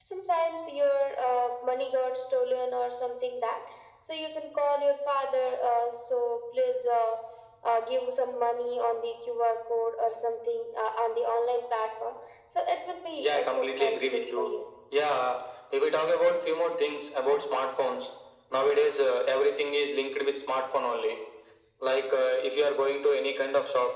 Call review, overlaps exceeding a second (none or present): present